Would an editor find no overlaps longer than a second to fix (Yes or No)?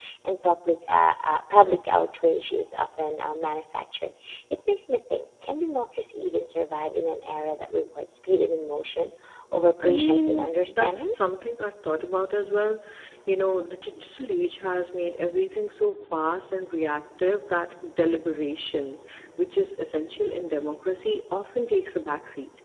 No